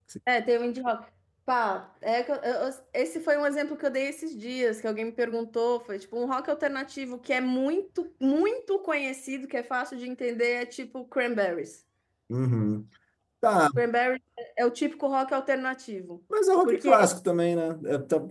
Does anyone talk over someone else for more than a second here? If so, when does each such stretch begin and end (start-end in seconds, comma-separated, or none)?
none